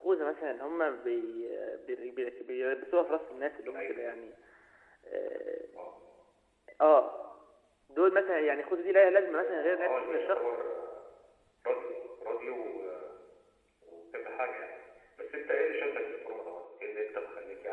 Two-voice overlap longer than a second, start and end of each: 9.3-10.6

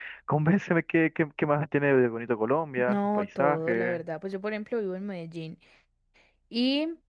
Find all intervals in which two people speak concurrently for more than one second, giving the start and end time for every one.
2.8-4.0

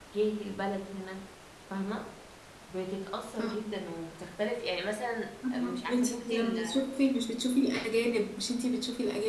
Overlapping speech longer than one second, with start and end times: 5.5-6.8

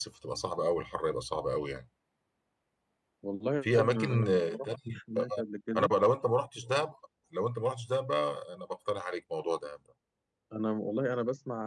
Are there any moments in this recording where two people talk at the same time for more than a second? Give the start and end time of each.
3.6-5.0

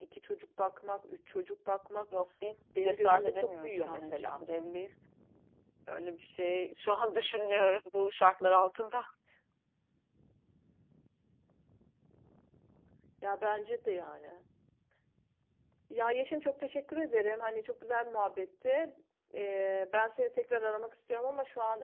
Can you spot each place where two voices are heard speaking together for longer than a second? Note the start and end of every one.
2.8-4.4

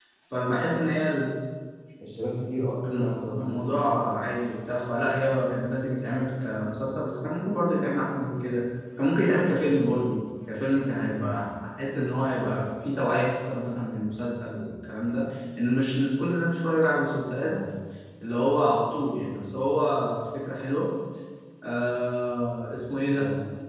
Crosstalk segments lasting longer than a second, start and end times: 2.9-4.2

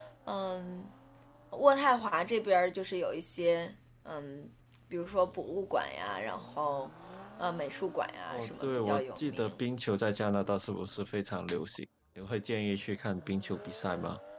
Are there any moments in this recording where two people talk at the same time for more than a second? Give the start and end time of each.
8.3-9.5

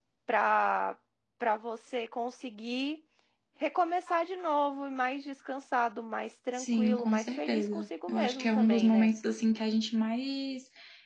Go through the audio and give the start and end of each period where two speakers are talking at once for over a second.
6.6-9.1

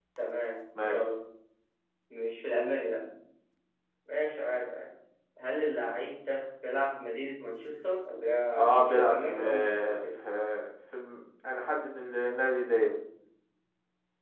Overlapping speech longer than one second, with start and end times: 8.5-10.0

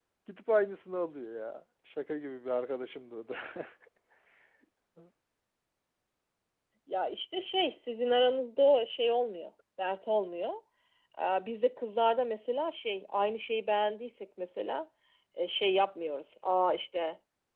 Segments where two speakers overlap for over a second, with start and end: none

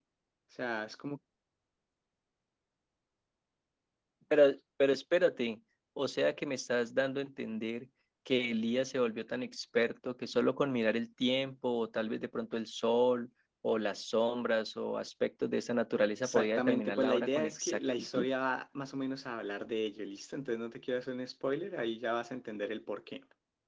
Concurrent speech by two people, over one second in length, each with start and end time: 16.2-18.3

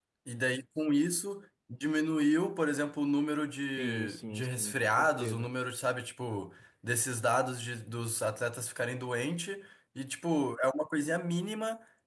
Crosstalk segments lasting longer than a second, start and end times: 3.8-5.5

